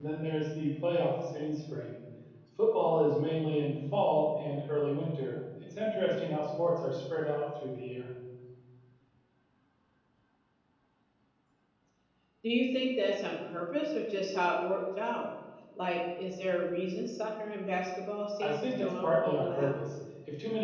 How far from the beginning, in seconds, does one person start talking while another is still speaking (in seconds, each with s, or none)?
18.4 s